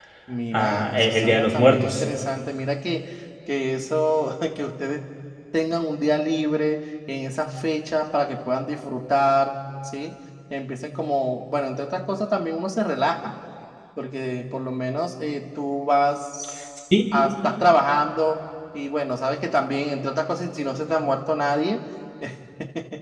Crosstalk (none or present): present